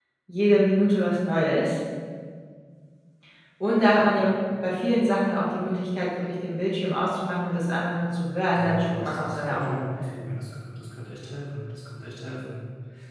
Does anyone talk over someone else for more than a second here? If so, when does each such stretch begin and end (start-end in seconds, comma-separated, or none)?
8.5-9.9